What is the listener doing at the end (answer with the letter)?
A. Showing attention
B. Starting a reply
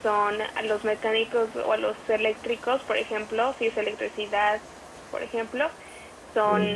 A